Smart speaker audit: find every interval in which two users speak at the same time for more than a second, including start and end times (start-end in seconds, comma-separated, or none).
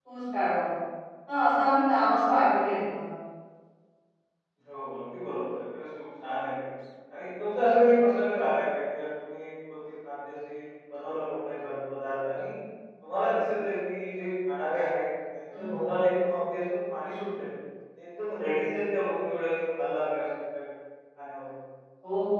none